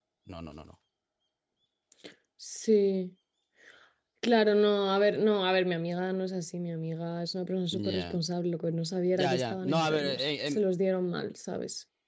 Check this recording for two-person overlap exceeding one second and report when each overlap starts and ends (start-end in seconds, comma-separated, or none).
9.2-10.6